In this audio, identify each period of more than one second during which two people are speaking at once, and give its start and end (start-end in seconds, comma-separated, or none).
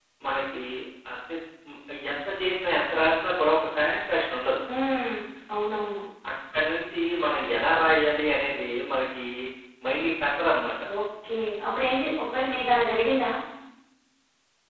none